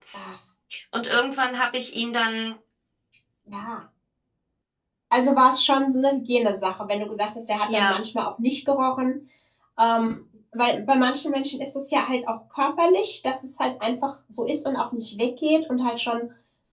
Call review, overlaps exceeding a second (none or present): none